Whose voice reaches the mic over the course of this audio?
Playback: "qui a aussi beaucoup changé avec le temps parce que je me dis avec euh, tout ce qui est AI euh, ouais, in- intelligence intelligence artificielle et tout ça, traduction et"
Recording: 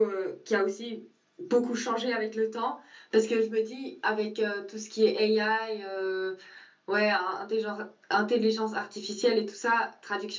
echo only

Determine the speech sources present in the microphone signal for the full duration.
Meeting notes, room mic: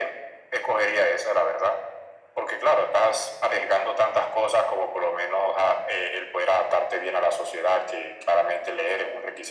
echo only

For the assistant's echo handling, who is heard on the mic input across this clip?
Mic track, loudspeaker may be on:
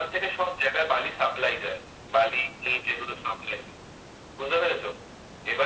echo only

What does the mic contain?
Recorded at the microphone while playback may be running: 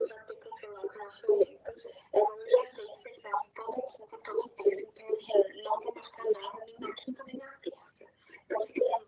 echo only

